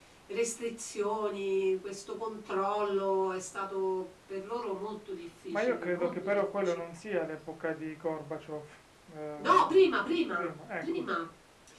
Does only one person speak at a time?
No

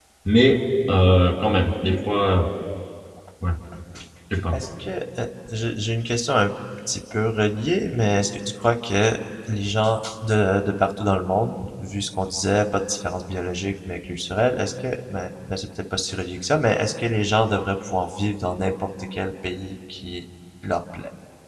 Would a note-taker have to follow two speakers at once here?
No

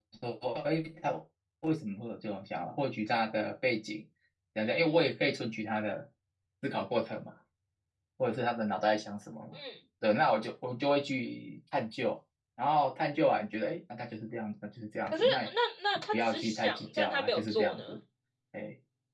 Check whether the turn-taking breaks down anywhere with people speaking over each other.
Yes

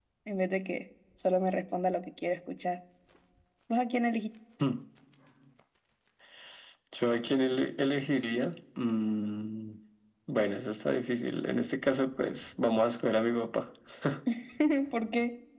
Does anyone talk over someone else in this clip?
No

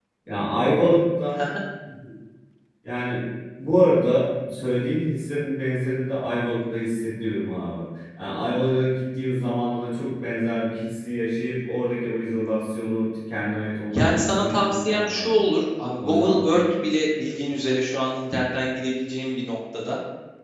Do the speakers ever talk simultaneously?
Yes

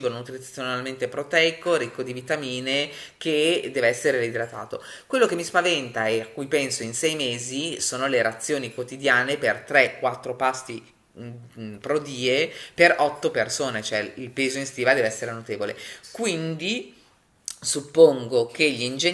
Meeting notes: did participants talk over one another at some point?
No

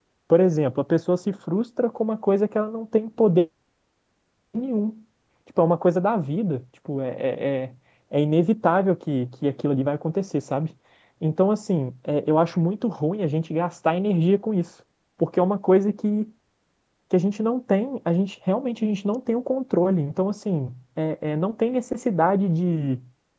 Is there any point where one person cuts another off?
No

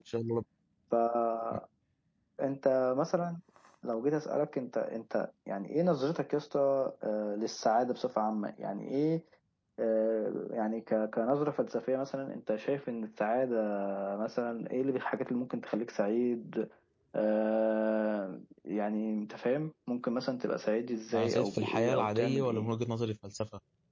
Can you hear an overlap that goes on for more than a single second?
Yes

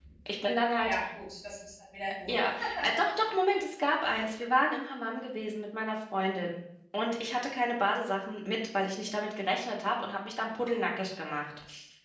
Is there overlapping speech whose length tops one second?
No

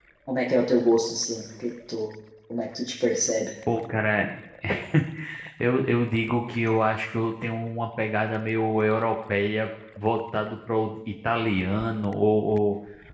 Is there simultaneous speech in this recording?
No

